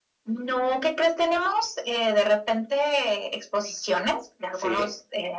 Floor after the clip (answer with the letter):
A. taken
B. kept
B